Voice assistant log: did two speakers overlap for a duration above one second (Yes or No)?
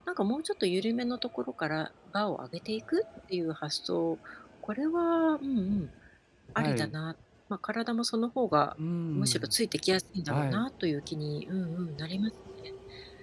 No